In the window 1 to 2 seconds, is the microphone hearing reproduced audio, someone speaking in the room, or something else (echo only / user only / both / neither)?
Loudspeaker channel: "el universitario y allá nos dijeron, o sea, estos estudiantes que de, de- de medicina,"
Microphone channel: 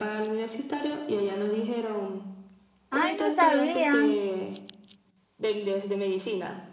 echo only